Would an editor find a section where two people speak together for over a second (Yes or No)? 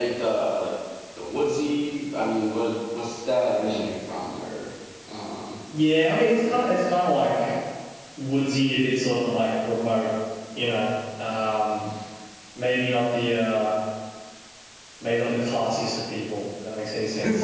No